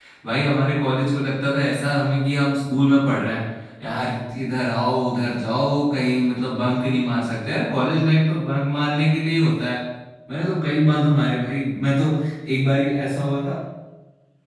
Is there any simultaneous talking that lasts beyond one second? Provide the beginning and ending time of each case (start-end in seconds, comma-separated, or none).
none